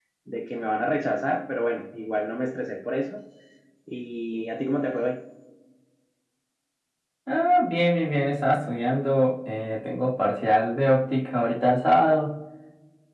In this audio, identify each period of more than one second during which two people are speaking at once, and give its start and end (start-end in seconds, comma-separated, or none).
none